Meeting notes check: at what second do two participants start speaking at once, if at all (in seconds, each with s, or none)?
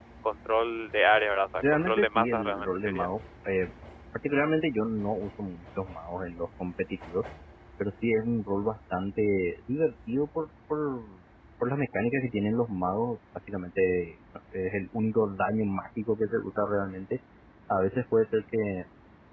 1.6 s